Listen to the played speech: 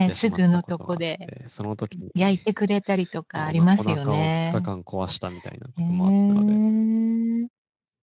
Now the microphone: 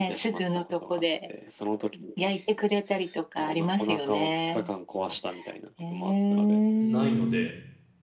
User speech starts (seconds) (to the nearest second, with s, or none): 7 s